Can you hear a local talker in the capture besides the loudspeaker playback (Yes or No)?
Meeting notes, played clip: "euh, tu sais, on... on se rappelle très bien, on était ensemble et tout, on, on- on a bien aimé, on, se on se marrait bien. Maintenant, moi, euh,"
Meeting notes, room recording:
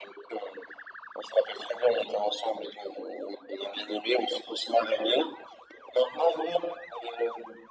No